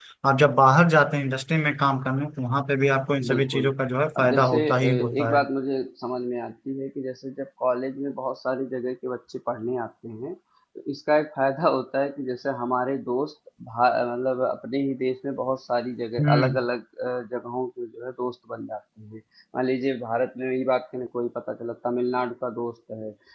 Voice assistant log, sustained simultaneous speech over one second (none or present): present